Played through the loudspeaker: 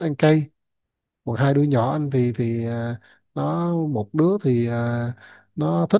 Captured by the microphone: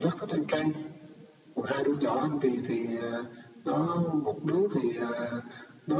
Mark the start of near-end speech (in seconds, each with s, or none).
none